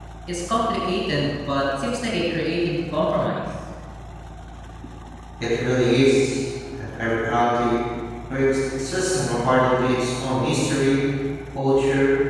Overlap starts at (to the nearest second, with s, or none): none